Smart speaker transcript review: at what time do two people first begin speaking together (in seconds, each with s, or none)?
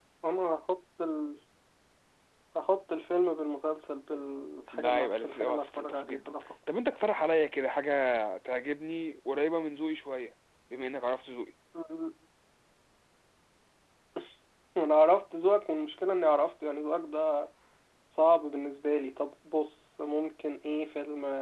4.7 s